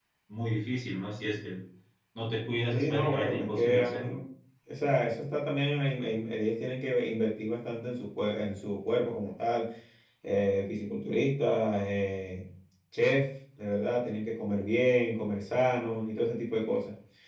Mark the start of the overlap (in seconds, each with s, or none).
2.7 s